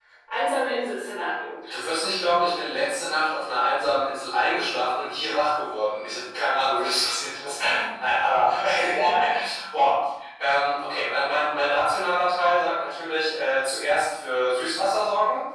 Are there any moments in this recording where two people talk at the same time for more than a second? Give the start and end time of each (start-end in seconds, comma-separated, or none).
none